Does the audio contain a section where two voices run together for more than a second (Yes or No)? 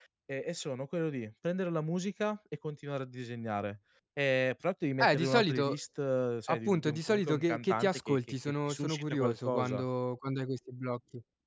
Yes